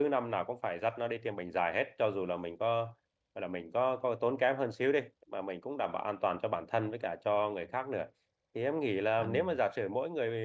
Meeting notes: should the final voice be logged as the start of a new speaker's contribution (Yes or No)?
No